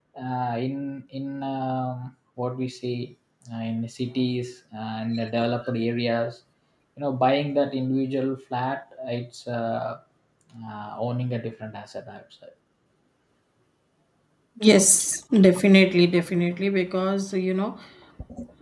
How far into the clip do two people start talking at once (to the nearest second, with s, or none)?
none